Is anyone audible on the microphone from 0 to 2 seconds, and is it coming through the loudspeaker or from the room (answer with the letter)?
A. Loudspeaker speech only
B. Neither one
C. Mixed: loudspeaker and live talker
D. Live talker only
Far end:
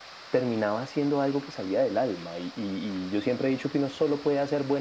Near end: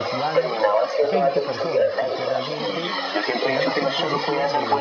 C